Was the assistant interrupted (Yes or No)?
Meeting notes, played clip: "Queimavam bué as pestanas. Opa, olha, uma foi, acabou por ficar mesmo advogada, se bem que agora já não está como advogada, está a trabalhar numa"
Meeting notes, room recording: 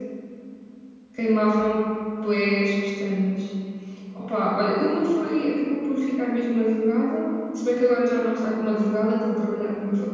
No